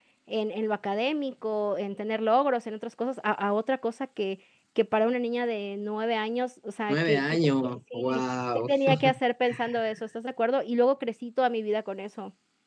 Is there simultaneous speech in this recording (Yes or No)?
Yes